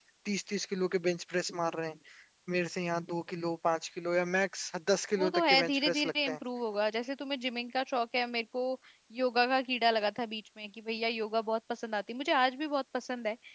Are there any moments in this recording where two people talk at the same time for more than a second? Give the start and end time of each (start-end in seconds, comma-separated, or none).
5.2-6.4